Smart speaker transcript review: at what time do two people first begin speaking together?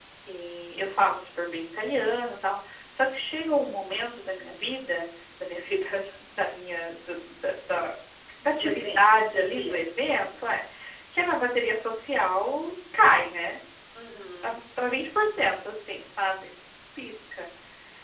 8.5 s

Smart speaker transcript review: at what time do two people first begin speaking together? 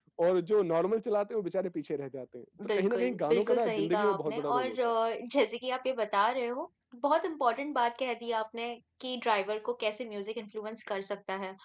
2.6 s

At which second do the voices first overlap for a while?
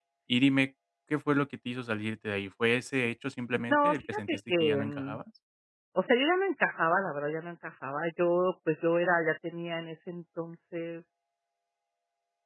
3.7 s

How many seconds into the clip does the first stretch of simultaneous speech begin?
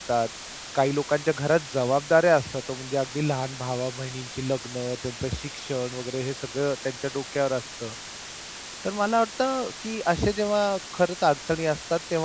none

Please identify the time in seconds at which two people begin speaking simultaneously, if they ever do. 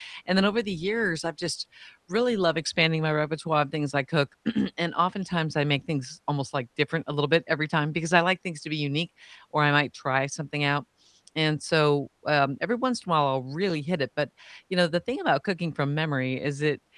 none

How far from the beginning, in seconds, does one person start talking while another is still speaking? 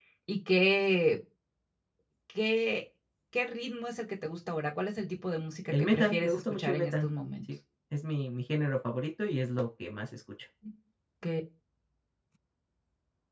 5.7 s

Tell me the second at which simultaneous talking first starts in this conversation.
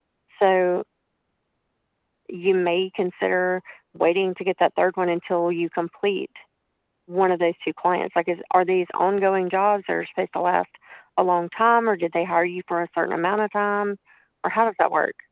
none

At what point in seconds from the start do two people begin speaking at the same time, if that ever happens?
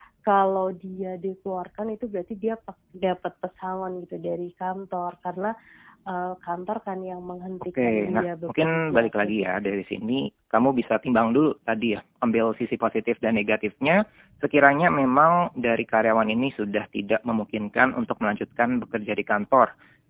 7.8 s

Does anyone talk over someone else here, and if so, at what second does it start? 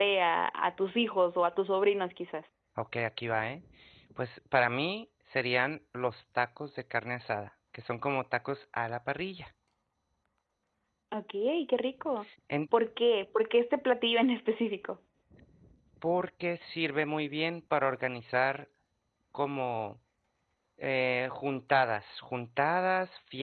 none

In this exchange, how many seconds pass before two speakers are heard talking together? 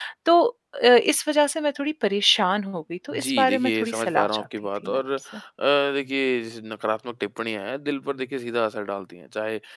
3.1 s

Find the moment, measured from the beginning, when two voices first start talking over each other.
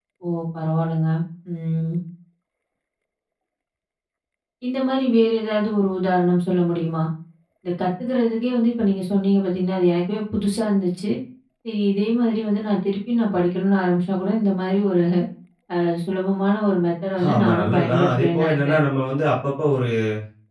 17.2 s

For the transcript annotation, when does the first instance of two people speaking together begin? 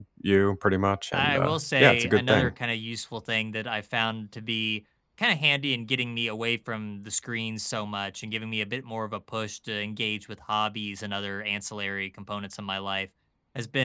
1.1 s

